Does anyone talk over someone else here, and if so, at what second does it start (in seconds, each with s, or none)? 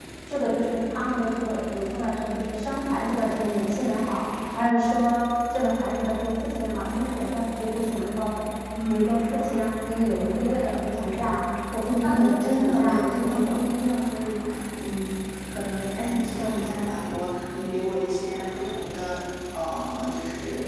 11.9 s